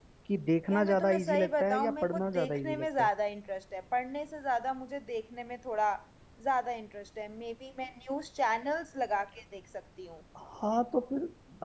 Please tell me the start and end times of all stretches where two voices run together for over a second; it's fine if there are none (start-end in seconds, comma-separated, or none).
0.7-3.1